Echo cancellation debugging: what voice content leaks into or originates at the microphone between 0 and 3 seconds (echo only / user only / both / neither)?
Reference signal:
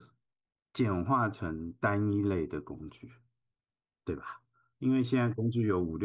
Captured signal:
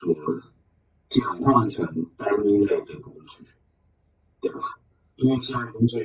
echo only